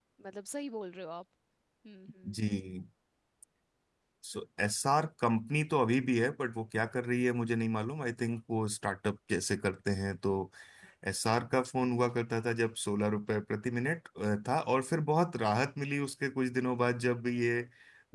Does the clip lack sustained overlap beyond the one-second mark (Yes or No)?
Yes